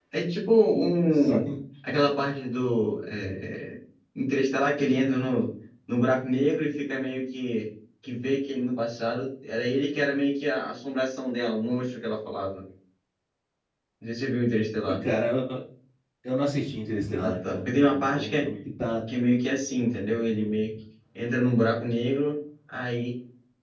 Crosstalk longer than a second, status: present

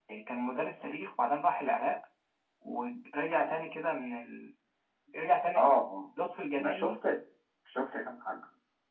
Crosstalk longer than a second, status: none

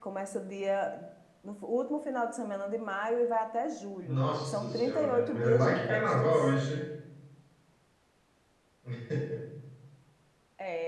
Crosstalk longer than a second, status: present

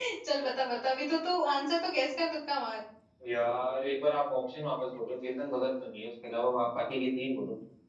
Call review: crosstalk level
none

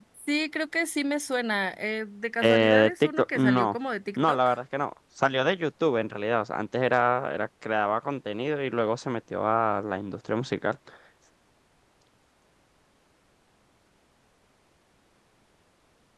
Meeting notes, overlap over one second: present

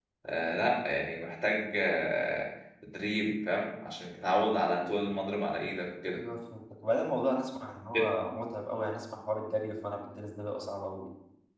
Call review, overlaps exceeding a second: none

